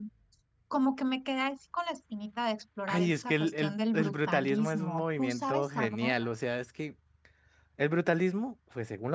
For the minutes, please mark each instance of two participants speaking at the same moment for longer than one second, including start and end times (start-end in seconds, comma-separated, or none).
2.9-6.1